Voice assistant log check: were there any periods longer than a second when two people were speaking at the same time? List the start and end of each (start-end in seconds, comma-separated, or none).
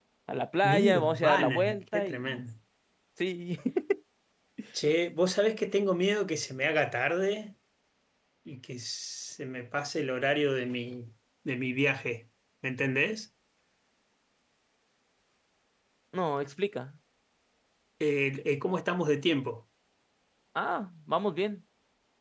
0.6-2.4